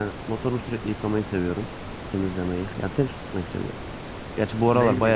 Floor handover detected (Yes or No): Yes